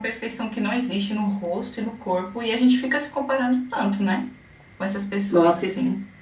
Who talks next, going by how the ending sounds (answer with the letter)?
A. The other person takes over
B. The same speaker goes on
A